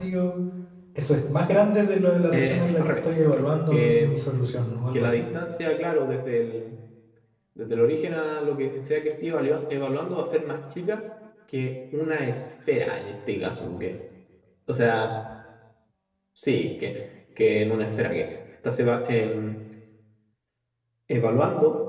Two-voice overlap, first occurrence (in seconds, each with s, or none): 2.3 s